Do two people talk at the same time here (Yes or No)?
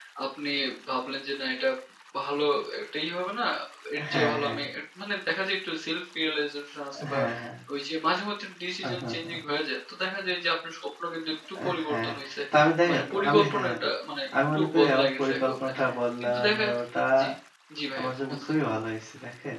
Yes